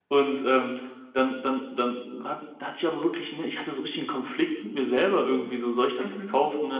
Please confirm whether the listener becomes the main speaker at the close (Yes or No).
No